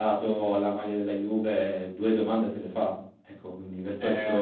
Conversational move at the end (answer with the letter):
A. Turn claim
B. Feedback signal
A